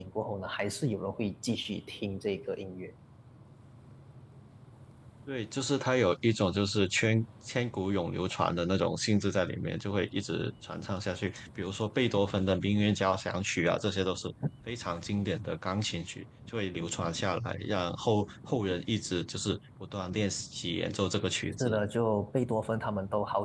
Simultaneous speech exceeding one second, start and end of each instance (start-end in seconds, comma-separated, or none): none